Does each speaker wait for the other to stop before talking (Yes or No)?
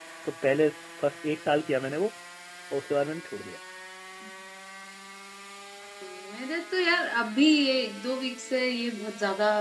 Yes